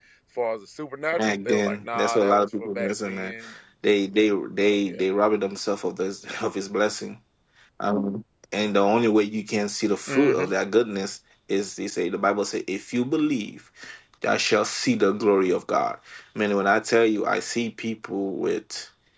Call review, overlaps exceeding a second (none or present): present